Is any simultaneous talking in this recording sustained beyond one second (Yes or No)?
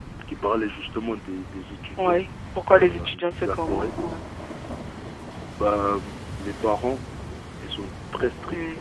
Yes